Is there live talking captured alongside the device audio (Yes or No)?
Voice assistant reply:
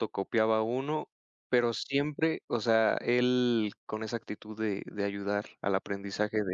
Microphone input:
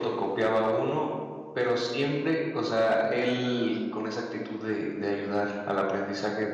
No